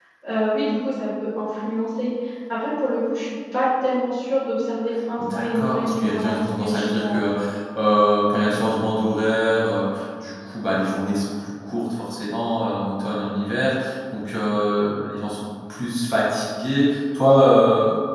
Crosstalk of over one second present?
Yes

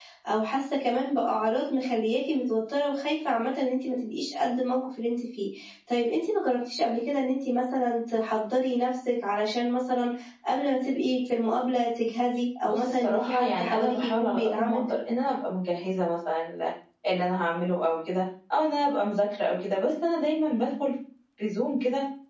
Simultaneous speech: Yes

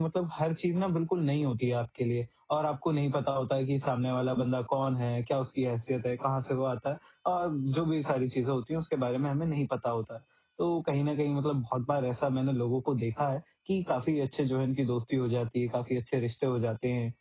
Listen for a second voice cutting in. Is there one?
No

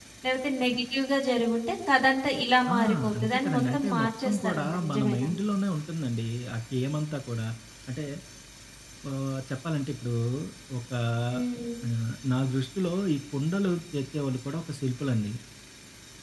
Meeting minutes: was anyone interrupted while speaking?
Yes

